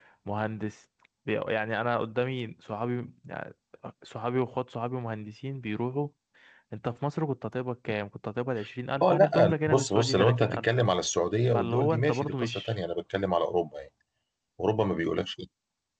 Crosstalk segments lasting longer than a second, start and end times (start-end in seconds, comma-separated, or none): 9.0-10.7, 11.5-12.8